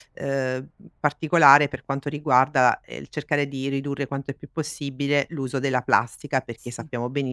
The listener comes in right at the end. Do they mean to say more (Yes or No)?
No